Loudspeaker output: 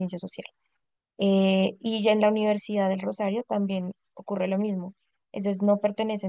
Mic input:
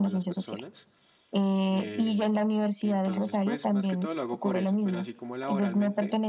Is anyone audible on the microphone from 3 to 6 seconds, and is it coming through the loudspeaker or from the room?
both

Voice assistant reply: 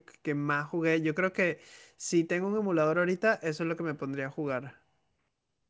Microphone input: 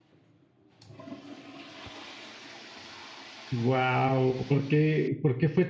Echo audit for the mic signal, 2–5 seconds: user only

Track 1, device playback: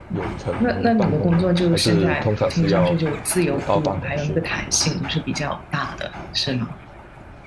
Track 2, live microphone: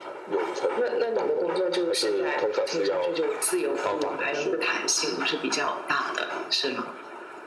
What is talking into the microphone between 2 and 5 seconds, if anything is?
echo only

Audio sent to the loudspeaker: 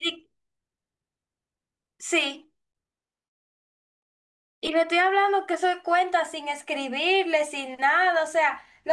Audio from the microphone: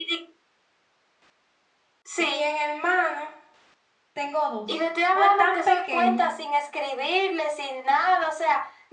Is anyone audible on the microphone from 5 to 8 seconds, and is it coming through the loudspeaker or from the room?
both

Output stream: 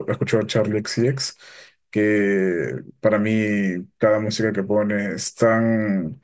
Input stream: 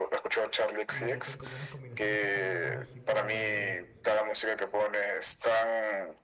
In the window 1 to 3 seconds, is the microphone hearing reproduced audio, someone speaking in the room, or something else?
both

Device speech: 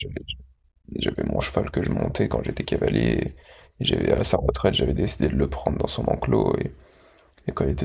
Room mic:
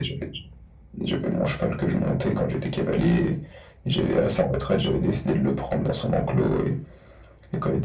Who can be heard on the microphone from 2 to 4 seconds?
echo only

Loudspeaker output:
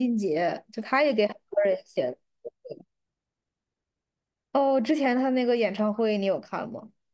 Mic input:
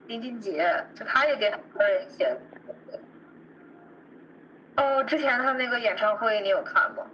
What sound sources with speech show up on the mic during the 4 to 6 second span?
echo only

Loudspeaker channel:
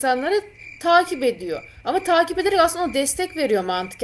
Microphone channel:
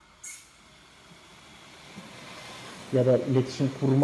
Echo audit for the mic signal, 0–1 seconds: neither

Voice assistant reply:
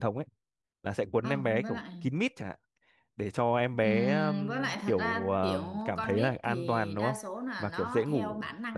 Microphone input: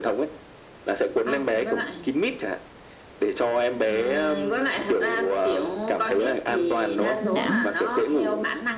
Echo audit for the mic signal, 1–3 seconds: echo only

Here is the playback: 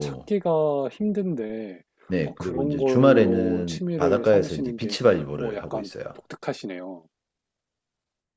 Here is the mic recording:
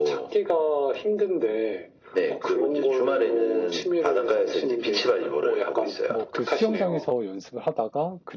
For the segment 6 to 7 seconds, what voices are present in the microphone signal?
both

